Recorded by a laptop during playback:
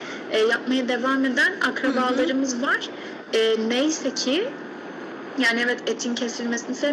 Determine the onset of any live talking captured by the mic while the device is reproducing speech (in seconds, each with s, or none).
1.9 s